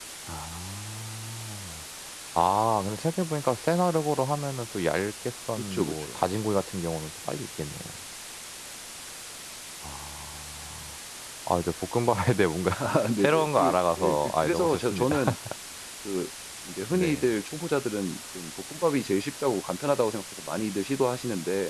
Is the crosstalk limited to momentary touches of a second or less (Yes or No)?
No